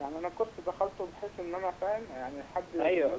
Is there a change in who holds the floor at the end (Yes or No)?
Yes